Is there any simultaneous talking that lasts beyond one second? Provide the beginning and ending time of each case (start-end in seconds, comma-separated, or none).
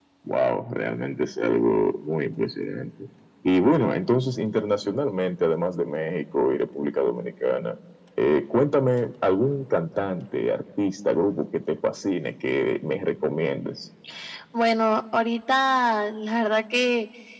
none